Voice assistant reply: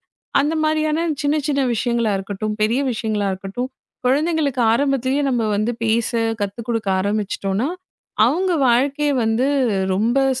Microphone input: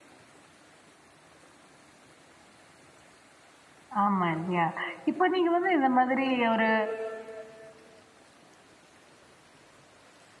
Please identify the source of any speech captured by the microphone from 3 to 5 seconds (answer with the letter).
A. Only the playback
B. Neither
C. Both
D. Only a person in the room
D